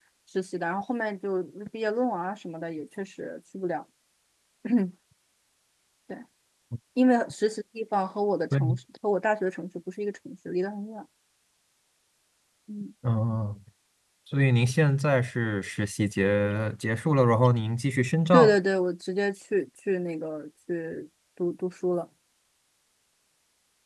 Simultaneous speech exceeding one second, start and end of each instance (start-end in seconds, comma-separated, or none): none